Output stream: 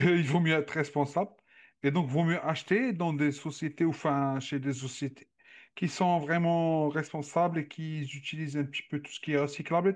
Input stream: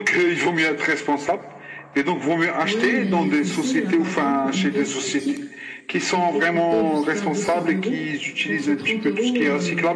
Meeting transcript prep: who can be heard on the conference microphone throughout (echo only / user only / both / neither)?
both